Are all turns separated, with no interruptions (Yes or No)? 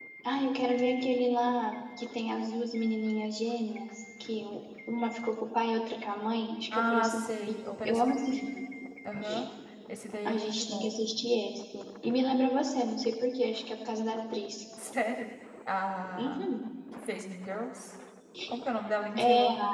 No